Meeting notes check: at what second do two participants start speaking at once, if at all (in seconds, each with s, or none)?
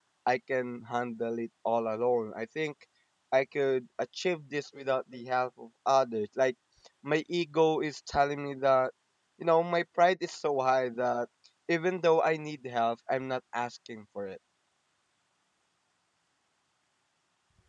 none